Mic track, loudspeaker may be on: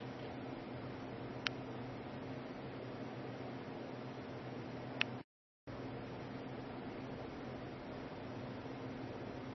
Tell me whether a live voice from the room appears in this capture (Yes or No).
No